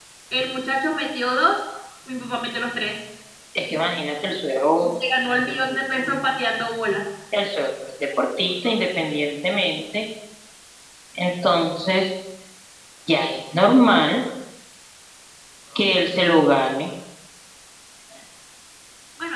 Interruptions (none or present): none